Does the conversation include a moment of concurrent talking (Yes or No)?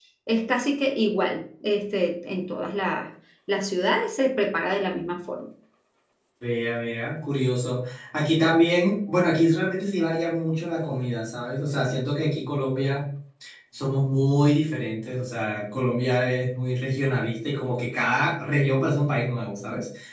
No